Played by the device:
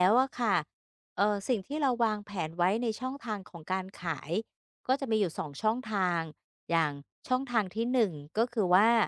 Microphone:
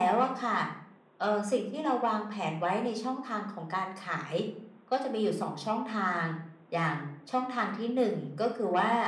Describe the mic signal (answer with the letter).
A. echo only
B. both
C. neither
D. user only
A